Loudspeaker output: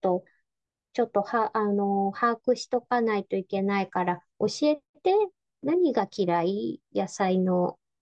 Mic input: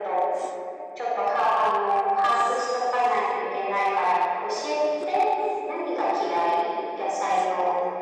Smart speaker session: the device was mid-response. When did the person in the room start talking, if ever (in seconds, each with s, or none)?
none